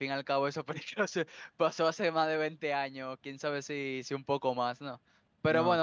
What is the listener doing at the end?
listening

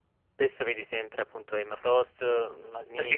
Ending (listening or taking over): taking over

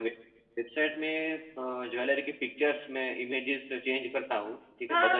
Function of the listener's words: taking over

